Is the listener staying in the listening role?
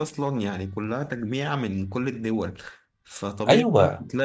Yes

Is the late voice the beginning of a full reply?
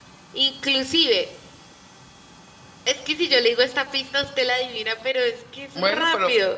Yes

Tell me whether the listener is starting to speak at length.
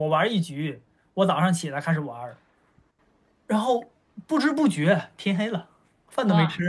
Yes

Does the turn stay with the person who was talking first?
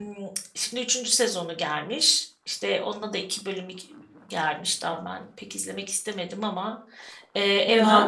Yes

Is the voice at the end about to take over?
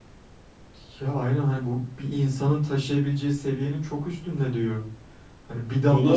No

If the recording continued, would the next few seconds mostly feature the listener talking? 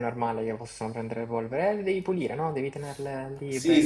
Yes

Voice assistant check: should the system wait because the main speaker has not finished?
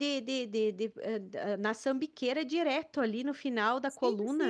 No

